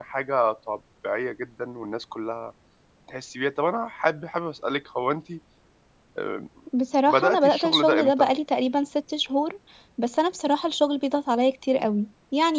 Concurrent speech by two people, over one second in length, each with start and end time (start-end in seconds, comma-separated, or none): 7.1-8.3